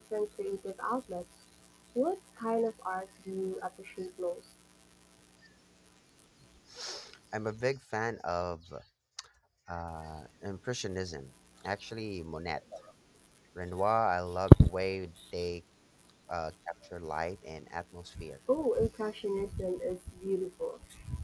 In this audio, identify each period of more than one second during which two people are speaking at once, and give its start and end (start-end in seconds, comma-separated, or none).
none